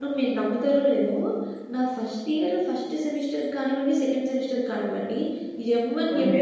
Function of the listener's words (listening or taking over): listening